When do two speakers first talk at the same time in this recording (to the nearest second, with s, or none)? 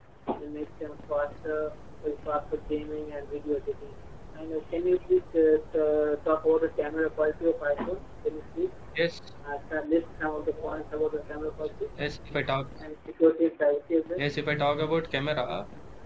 none